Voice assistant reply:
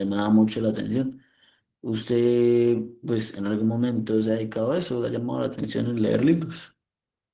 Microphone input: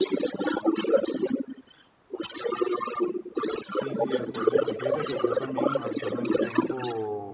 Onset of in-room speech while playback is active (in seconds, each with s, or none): 3.7 s